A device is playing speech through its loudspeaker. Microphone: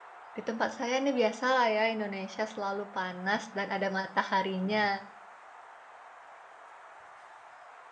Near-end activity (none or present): present